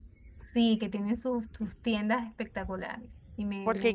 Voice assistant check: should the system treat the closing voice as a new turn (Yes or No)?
Yes